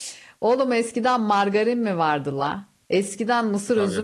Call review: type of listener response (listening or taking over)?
listening